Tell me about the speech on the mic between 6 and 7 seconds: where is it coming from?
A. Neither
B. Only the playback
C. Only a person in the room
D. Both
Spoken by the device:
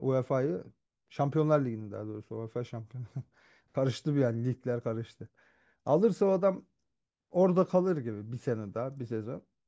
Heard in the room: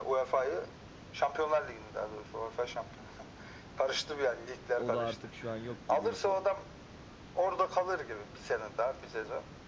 D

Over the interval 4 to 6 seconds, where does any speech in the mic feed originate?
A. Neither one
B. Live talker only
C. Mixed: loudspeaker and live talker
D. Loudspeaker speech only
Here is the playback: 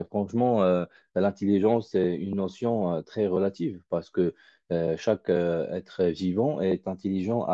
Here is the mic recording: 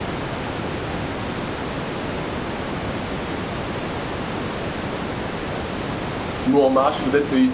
A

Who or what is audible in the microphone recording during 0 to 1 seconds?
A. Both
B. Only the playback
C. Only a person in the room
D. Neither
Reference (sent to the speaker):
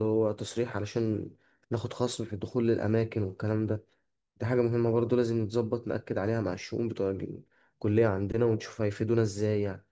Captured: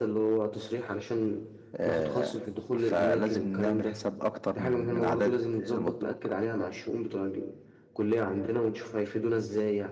B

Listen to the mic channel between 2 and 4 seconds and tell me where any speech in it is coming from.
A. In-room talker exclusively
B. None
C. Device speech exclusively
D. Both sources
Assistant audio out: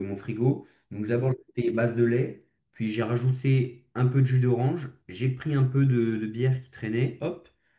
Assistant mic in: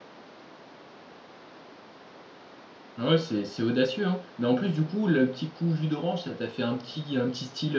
A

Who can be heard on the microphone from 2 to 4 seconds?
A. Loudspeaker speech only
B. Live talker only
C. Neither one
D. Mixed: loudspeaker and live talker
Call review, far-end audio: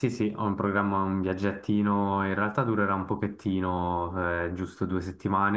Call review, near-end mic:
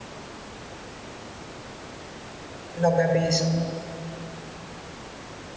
B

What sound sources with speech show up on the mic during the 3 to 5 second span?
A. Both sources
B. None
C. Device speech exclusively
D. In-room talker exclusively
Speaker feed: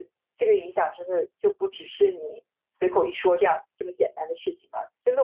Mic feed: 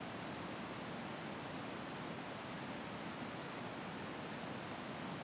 B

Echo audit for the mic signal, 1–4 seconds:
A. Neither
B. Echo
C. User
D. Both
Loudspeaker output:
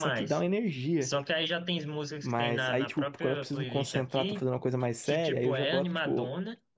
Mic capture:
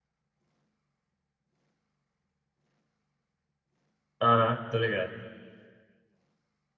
A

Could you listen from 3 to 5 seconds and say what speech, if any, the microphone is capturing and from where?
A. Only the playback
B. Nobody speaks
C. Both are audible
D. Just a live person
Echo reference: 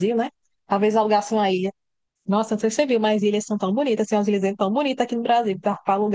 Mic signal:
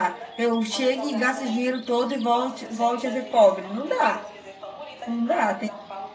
C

